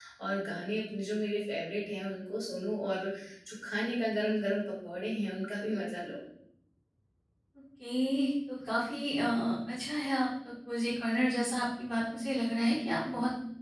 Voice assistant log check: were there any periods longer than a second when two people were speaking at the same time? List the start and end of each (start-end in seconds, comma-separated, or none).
none